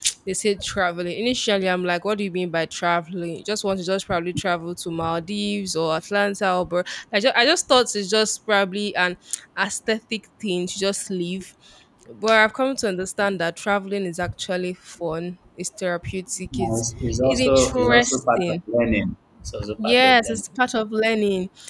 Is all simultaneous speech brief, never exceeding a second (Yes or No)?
No